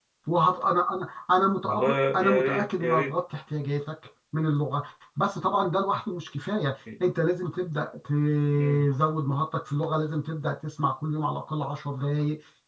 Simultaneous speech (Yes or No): Yes